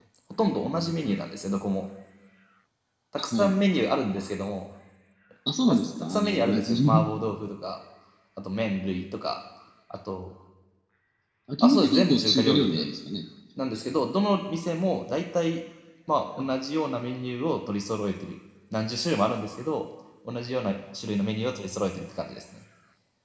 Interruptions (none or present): present